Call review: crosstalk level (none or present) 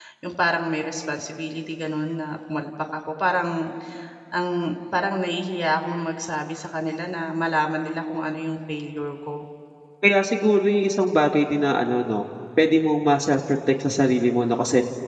none